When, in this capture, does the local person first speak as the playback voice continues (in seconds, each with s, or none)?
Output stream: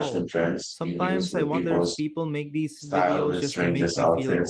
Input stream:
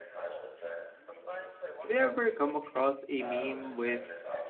1.8 s